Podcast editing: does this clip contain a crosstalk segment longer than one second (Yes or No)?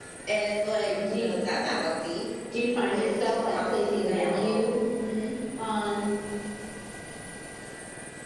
Yes